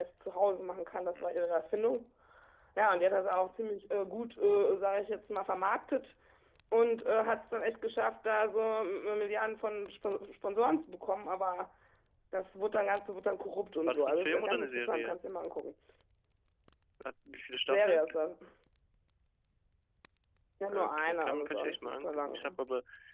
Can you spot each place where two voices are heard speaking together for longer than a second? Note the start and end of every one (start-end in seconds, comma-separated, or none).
13.9-15.2, 20.7-22.5